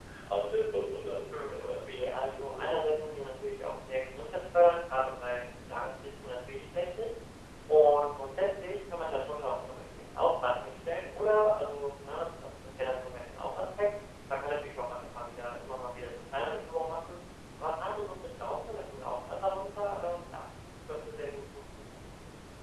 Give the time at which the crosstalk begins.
1.3 s

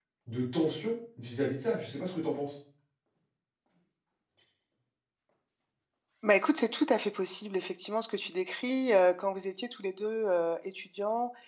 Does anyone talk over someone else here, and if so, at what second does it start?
none

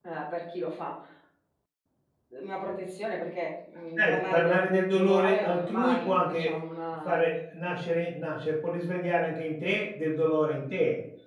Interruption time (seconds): 4.0 s

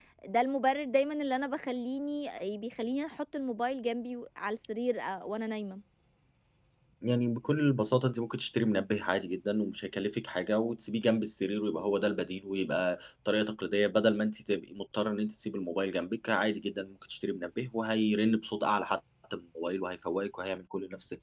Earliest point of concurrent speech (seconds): none

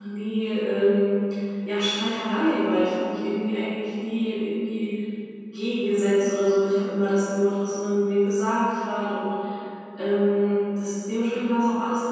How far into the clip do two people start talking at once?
none

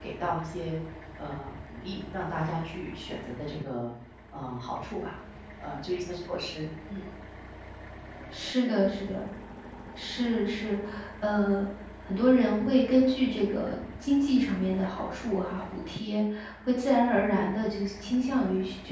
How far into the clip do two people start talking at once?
none

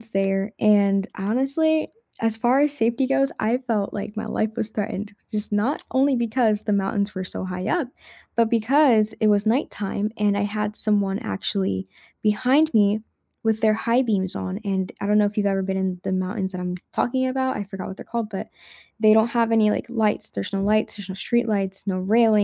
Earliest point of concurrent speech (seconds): none

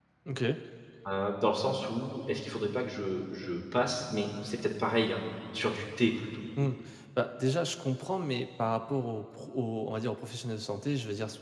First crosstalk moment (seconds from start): none

